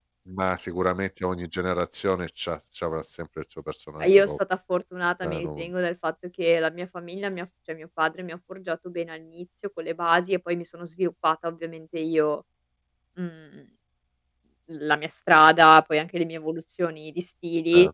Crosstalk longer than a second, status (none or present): none